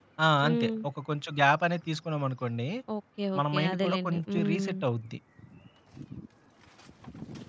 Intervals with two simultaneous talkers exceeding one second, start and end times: 3.4-4.7

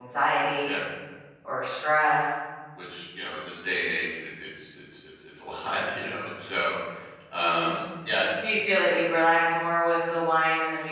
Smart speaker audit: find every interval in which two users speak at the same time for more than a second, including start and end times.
none

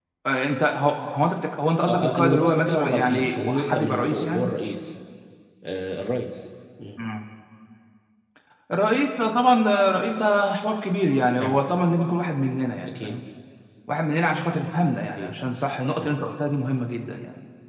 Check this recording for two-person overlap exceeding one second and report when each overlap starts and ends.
1.9-4.5

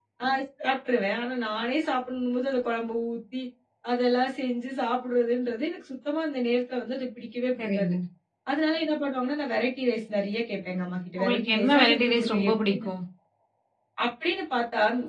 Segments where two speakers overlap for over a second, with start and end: 11.2-12.9

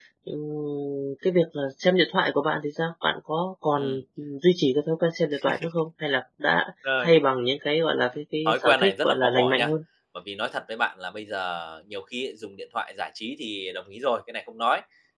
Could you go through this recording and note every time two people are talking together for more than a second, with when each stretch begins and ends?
8.4-9.7

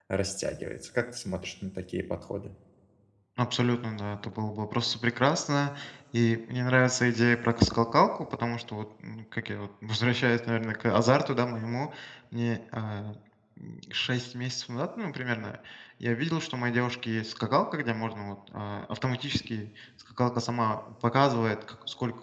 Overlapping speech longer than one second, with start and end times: none

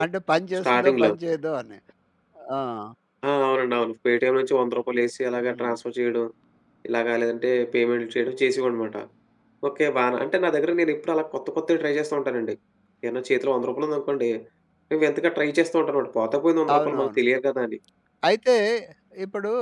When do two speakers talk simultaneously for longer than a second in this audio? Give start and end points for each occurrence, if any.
none

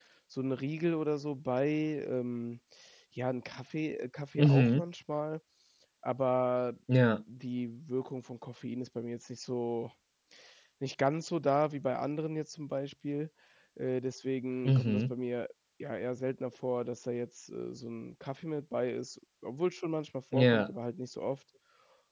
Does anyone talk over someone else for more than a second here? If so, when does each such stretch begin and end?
none

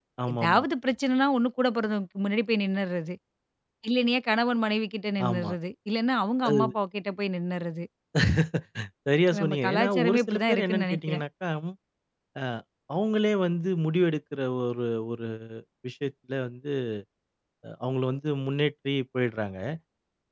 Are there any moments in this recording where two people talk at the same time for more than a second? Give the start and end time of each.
9.4-11.2

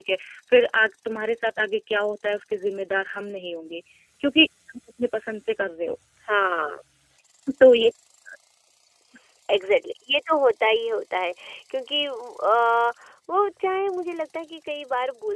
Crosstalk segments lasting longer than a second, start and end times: none

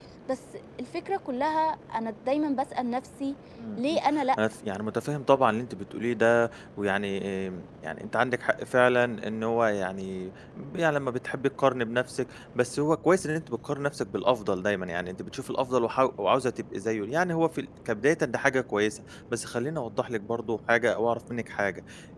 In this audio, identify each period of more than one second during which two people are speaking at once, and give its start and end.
none

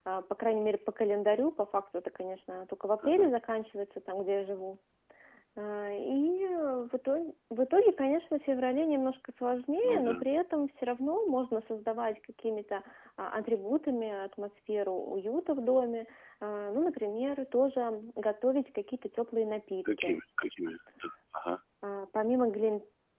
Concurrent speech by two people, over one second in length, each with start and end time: none

